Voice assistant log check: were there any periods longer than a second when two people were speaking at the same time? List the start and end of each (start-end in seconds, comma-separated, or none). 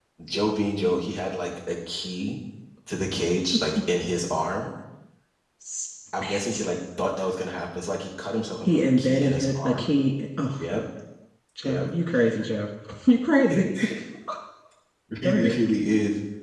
8.6-9.9